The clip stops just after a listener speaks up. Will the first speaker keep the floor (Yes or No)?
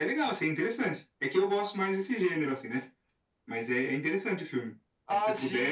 No